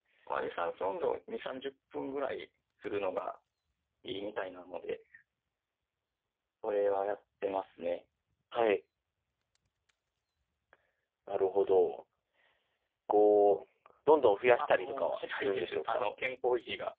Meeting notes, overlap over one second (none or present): present